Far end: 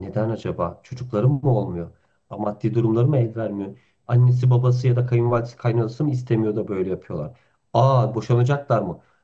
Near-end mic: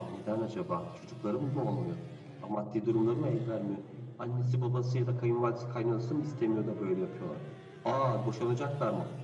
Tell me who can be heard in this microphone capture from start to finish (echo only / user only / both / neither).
echo only